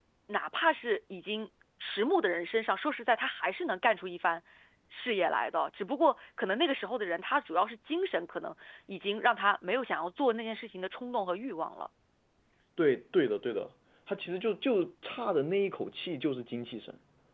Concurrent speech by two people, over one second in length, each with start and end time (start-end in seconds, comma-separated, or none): none